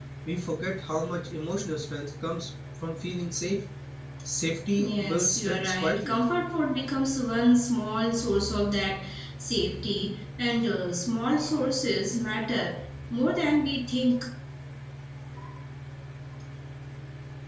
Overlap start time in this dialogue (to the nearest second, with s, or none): 5 s